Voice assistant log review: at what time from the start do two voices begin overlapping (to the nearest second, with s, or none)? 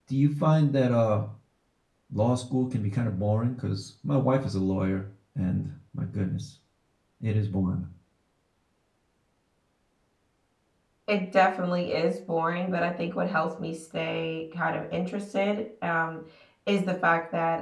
none